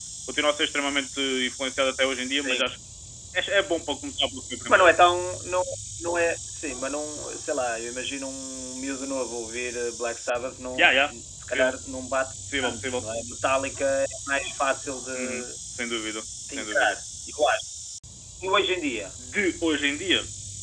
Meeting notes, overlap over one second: none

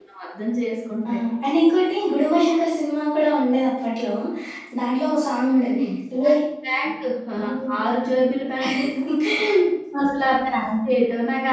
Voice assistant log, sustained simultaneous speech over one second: none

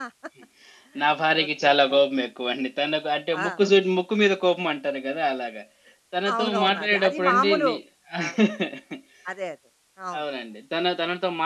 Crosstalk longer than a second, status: present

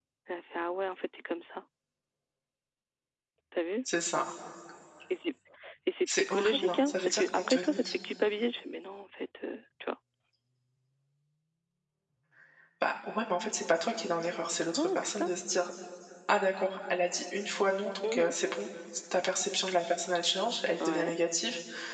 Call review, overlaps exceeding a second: present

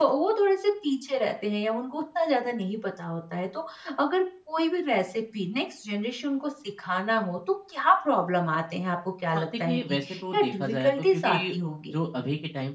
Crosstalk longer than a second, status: present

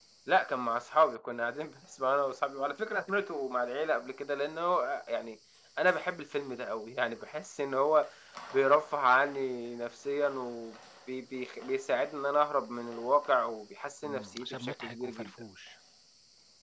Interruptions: present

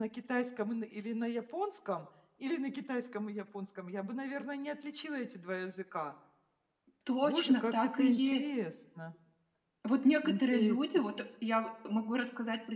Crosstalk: present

